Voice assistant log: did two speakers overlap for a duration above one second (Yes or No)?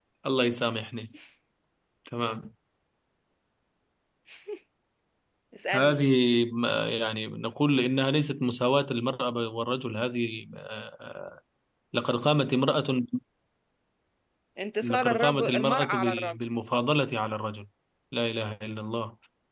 Yes